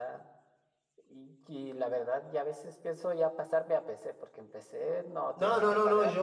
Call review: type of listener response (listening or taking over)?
taking over